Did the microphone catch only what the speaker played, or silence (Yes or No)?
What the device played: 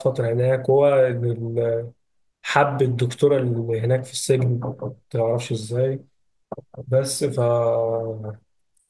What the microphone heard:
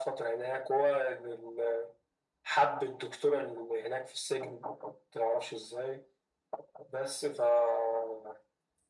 Yes